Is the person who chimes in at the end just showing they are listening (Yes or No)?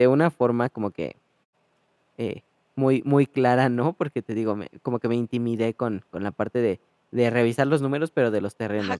No